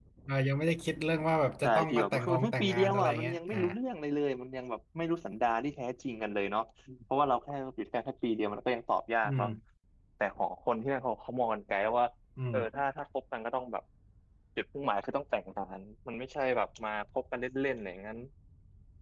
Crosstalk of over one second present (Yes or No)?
Yes